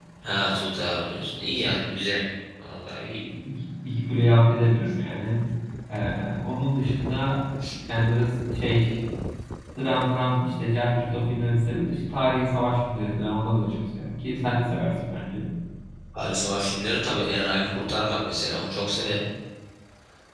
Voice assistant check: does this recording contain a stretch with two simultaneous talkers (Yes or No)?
No